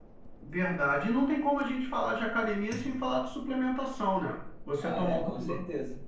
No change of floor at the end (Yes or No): No